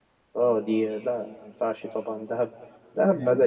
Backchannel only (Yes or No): Yes